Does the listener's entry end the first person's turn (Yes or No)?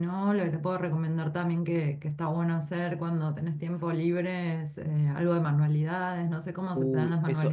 Yes